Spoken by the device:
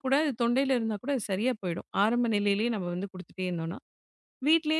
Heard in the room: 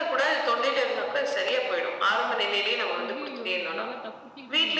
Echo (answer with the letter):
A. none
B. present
B